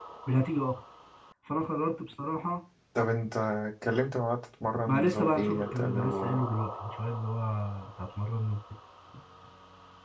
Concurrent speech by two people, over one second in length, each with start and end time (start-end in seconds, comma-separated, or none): 4.9-6.5